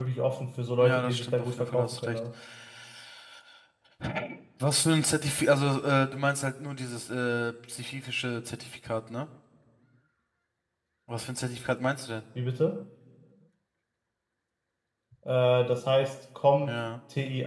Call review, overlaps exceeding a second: present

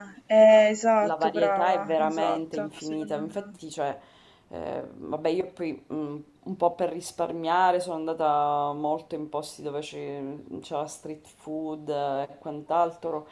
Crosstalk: present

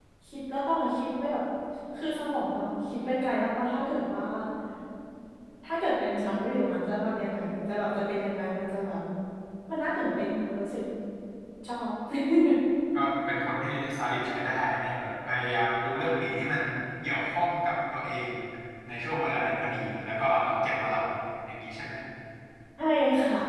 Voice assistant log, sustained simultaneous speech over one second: none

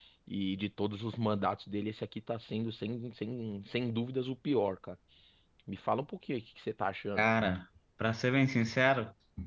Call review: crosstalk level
none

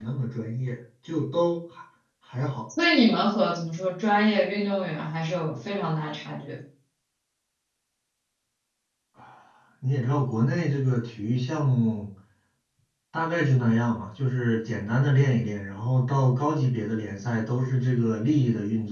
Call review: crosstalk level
none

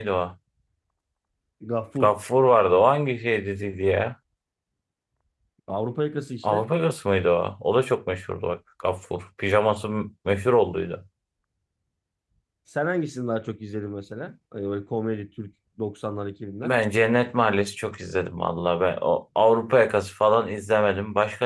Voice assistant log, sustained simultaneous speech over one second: none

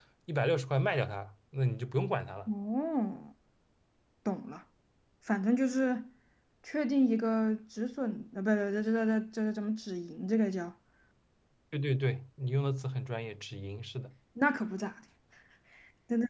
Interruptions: none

